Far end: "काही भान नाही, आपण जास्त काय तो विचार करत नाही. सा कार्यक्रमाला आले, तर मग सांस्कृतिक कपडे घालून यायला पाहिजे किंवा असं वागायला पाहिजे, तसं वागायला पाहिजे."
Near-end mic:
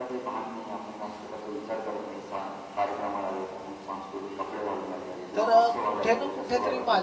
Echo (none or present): present